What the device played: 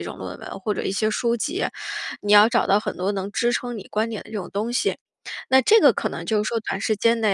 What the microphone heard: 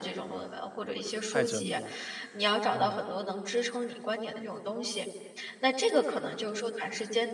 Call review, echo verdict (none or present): present